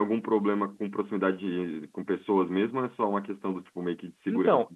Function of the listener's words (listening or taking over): taking over